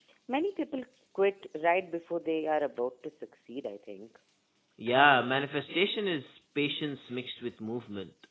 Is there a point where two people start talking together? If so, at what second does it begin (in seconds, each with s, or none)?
none